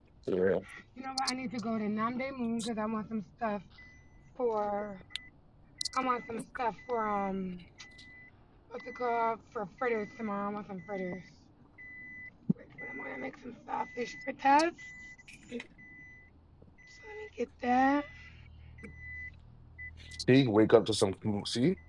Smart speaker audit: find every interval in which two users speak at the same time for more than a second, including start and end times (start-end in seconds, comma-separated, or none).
none